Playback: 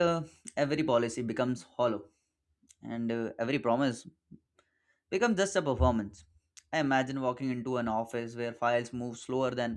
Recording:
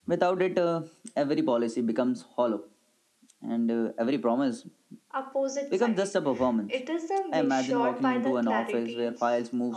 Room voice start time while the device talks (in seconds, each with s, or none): 5.1 s